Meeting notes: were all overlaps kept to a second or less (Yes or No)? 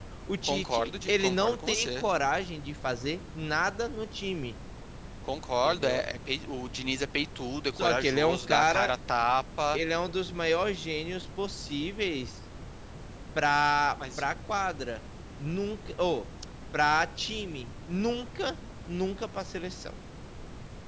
No